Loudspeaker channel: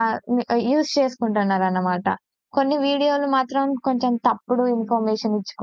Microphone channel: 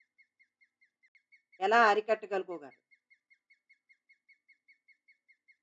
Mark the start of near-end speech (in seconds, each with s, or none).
1.7 s